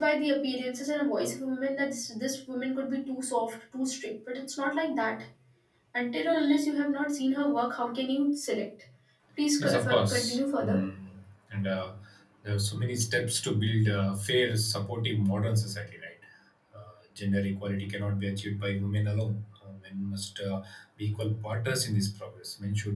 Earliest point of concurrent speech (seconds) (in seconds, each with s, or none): 9.6 s